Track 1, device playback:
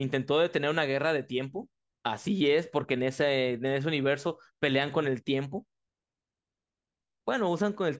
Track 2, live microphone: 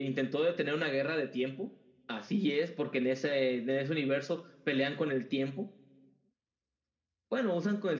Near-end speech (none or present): none